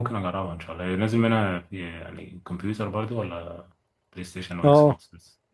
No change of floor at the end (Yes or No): No